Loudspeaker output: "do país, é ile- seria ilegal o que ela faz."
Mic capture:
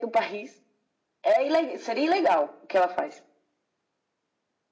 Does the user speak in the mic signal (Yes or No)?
No